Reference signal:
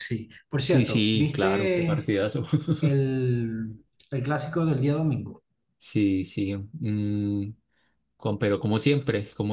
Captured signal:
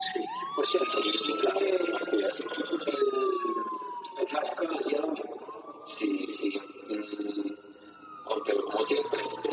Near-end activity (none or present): none